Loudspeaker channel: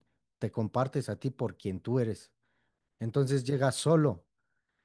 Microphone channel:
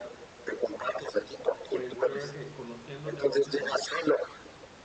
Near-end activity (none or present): present